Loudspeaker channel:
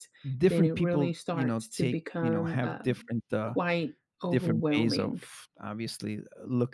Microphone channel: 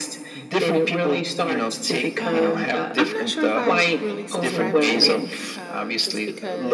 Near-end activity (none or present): present